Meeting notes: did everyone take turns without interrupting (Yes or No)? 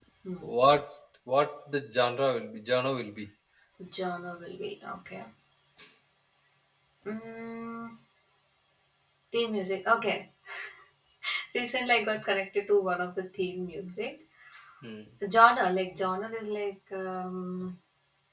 Yes